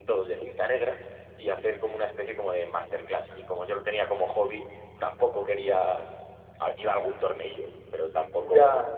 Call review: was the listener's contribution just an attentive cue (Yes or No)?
Yes